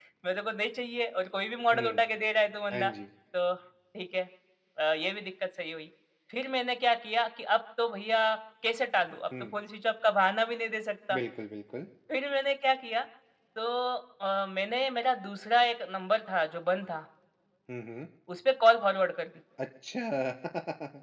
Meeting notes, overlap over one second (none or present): none